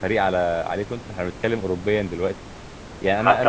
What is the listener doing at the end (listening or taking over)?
listening